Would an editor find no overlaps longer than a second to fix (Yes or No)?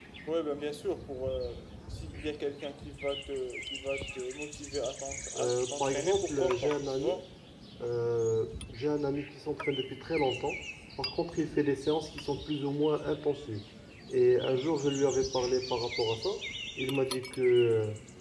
No